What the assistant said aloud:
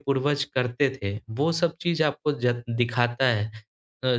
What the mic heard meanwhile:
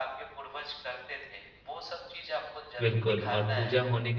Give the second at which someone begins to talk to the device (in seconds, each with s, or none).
2.8 s